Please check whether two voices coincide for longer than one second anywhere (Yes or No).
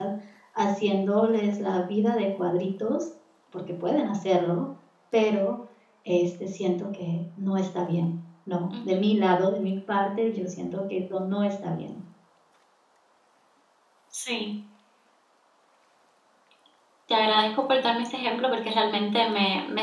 No